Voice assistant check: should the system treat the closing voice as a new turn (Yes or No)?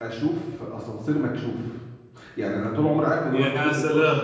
No